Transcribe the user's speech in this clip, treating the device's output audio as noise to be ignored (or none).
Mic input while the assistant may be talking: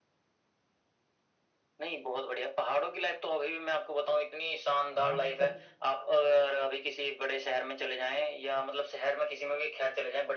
हाँ मतलब